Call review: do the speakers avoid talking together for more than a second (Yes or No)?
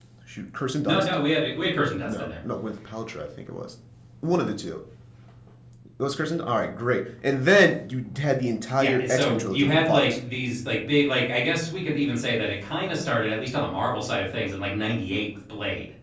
No